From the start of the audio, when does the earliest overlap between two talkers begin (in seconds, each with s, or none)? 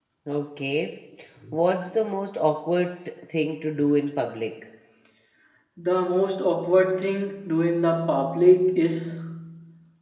none